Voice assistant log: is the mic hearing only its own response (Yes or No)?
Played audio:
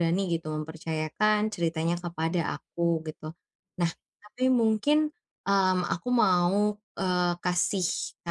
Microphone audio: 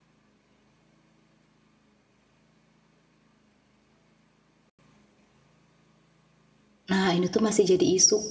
No